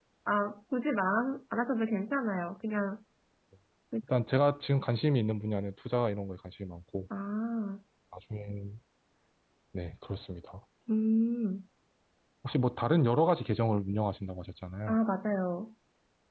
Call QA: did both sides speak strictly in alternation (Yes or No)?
Yes